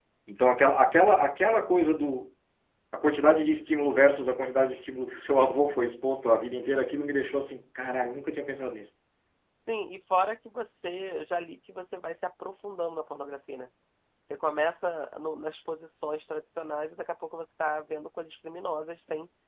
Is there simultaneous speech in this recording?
No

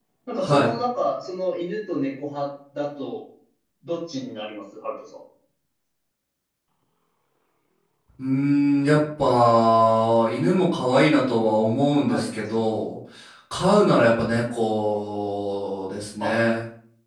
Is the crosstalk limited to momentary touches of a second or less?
Yes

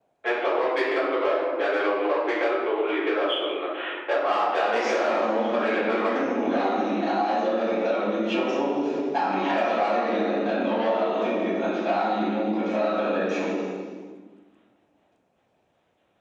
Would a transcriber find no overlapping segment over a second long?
No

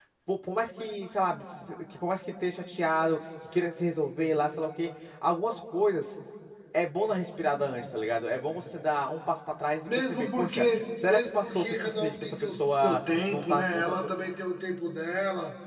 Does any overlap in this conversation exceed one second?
Yes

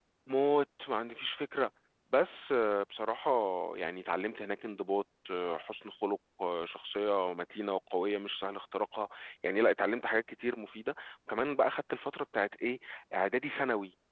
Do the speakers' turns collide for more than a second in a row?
No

